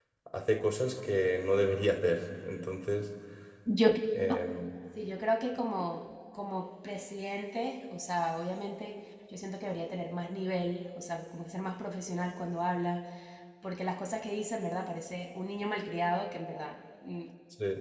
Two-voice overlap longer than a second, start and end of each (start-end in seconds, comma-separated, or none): none